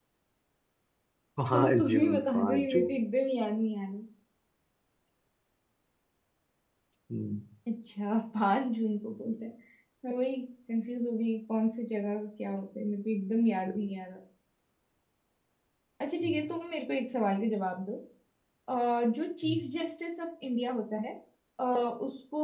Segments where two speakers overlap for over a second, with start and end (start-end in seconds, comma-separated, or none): 1.5-2.9